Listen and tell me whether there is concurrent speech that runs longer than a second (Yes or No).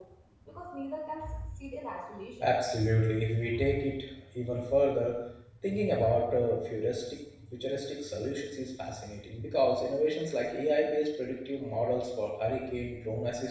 No